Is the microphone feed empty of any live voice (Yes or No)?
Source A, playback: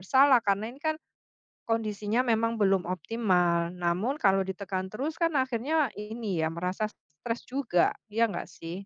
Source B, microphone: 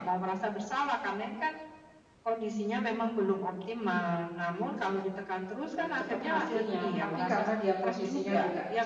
No